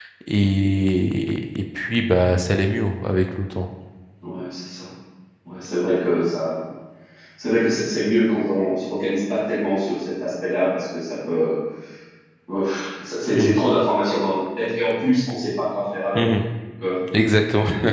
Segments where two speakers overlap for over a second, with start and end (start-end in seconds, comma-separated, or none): none